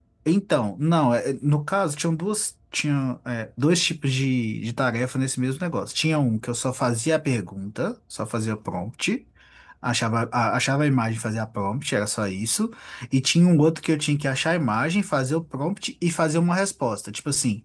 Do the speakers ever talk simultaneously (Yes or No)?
No